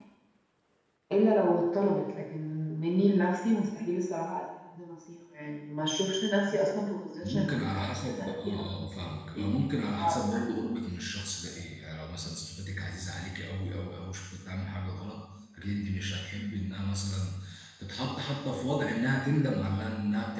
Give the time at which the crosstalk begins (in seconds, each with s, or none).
7.2 s